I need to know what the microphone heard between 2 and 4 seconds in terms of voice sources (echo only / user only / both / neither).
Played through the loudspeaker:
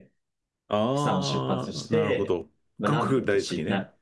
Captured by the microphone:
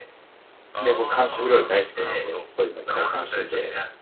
both